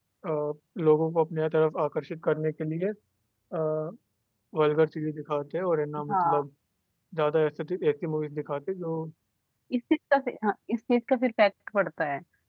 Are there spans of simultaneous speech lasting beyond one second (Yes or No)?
No